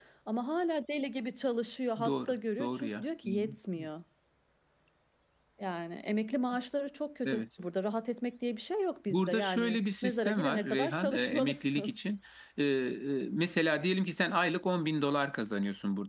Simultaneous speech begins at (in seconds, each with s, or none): 2.0 s